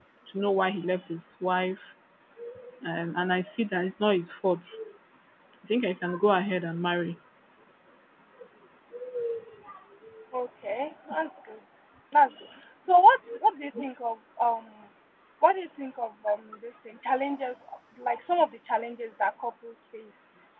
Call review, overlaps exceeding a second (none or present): none